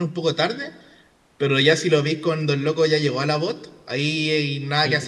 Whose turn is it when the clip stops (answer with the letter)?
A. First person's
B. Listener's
B